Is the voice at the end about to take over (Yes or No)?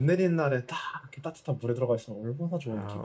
Yes